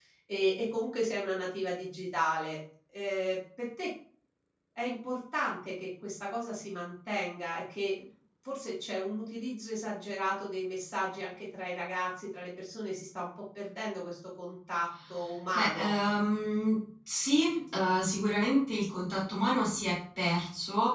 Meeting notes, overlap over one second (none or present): none